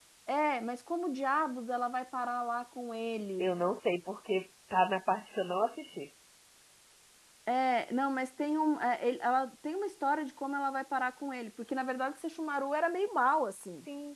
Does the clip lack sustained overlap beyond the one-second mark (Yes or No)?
Yes